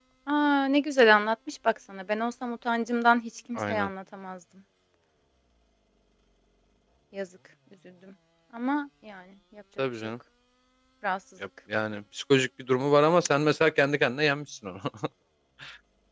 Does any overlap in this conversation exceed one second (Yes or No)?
No